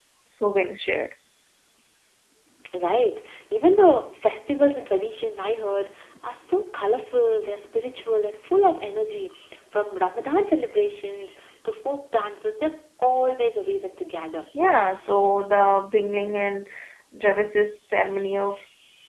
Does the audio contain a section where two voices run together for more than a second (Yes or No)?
No